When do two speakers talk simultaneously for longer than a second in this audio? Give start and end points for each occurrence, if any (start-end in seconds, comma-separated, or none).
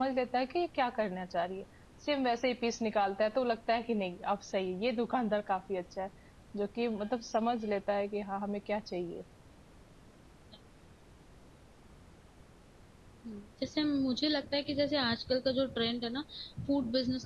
none